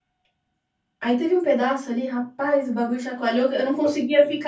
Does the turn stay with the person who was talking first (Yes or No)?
Yes